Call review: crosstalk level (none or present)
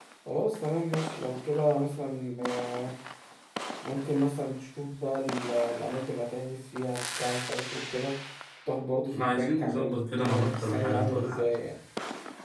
present